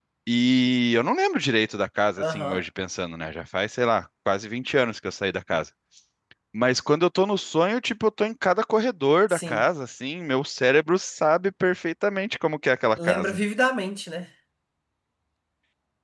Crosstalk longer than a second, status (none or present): none